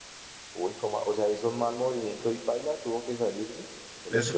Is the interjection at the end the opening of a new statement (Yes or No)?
Yes